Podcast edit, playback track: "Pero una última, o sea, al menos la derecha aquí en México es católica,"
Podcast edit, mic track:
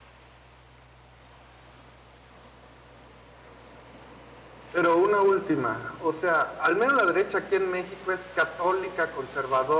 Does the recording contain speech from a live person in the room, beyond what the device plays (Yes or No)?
No